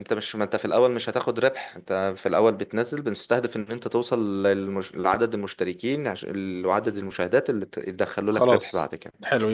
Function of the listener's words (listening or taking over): taking over